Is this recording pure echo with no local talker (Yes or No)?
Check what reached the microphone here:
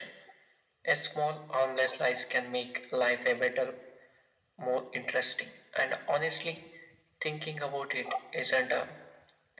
Yes